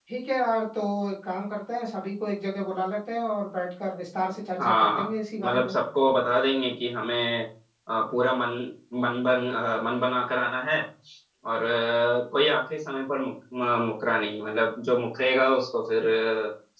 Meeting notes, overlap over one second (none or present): none